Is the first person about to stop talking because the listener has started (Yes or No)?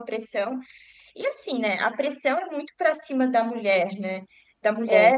No